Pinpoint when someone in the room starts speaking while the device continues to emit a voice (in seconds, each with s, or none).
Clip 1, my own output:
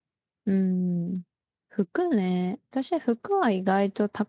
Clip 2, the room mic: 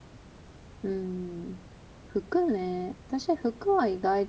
none